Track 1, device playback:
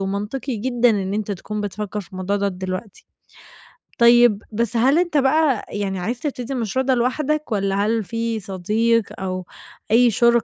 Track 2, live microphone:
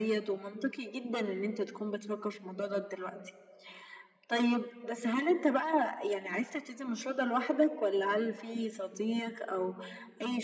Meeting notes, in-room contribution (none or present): none